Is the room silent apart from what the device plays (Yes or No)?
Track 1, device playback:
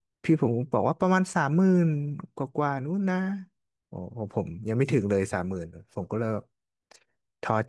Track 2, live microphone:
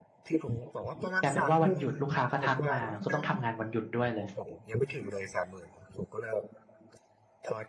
No